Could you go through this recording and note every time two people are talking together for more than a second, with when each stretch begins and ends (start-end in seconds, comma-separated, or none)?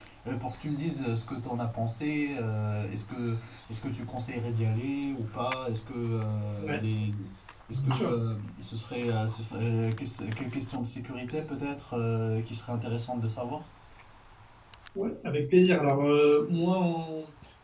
none